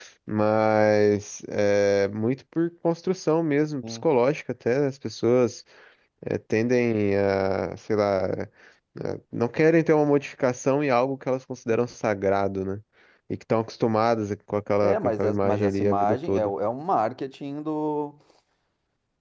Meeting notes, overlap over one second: present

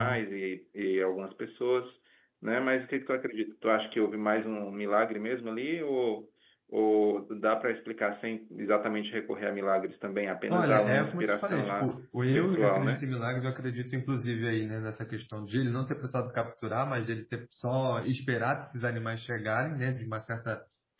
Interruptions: present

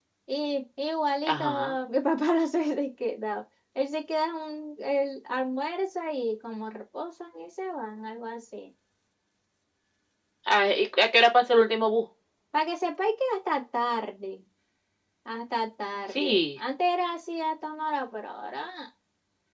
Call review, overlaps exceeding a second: none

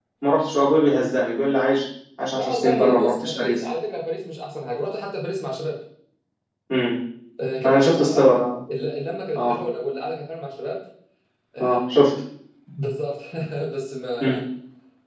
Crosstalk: present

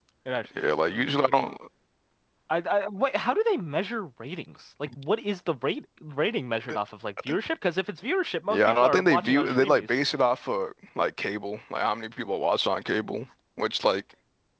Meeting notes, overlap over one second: present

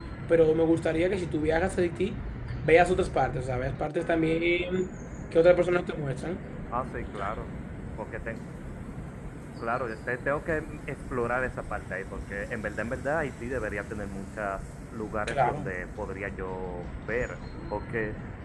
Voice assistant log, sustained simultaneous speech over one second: none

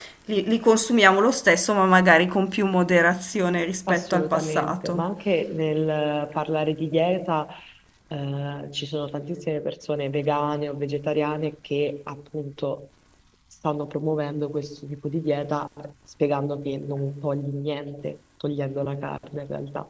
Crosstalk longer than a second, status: present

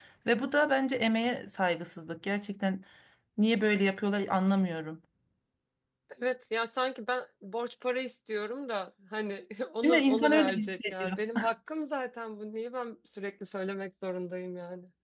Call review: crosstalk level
present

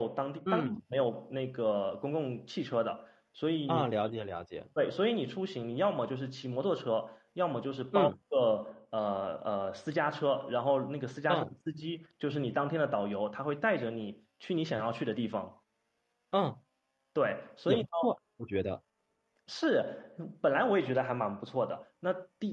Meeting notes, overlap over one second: none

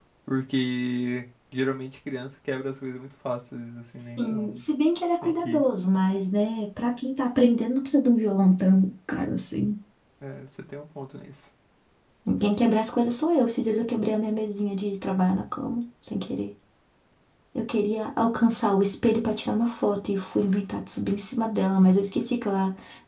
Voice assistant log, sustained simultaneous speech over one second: none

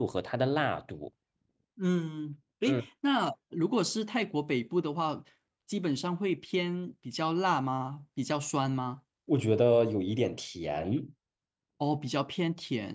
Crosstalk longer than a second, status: none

